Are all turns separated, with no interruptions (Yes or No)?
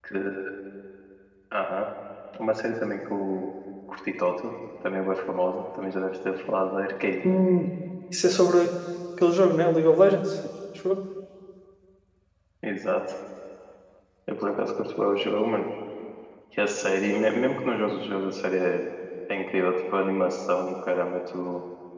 Yes